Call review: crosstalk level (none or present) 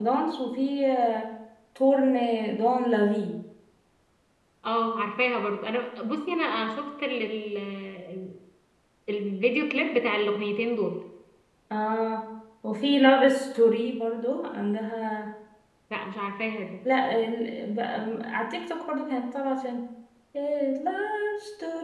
none